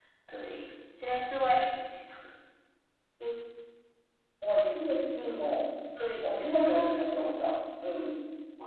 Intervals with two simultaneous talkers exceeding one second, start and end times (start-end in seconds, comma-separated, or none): none